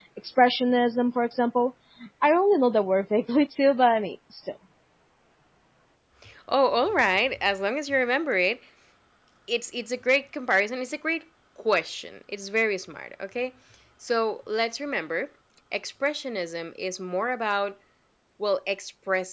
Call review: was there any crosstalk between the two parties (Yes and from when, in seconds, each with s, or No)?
No